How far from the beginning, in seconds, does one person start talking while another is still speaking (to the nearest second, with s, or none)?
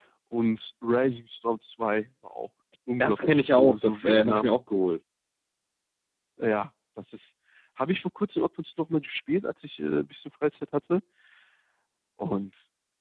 3 s